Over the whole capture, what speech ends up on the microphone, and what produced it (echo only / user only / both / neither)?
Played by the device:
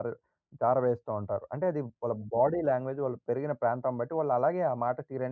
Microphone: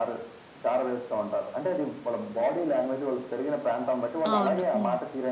both